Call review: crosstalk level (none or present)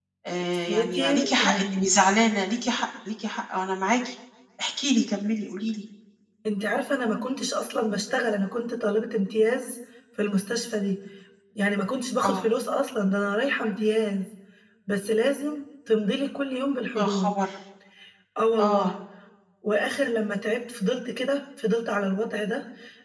present